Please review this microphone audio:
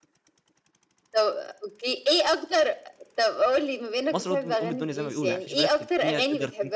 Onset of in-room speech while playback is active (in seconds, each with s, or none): 4.1 s